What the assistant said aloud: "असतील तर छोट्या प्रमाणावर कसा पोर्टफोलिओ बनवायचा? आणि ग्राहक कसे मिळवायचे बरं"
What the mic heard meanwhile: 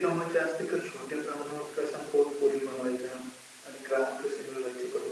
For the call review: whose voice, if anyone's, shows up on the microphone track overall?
echo only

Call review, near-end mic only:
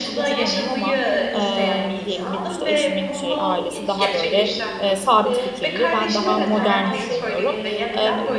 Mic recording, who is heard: both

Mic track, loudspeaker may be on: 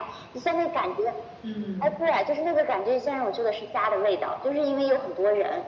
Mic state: both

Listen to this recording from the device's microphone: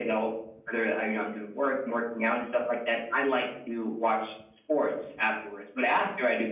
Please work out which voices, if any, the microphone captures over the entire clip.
echo only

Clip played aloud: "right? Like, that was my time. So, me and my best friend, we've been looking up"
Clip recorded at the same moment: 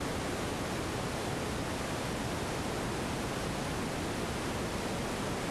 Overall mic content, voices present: neither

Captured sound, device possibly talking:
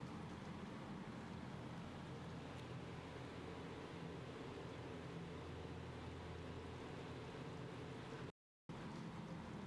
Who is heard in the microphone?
neither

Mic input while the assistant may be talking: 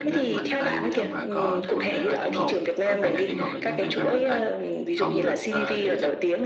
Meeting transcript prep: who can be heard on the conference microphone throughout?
both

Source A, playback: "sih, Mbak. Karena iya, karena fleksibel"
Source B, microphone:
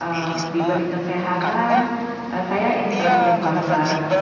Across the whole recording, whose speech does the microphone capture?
both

